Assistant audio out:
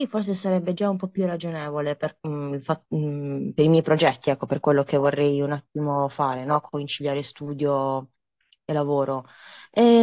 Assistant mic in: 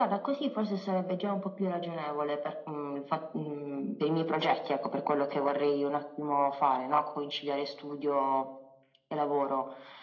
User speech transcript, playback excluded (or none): none